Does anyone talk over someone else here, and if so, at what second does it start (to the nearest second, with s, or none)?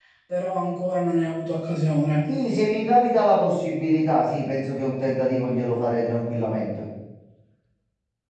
none